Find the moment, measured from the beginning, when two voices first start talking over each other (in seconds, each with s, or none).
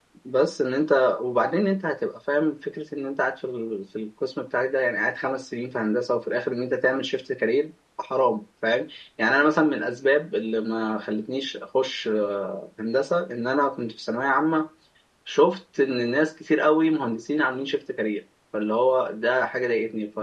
none